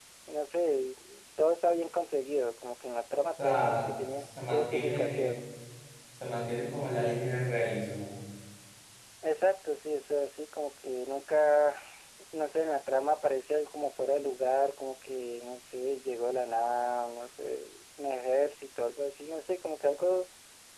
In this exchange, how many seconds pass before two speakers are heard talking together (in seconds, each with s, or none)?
3.3 s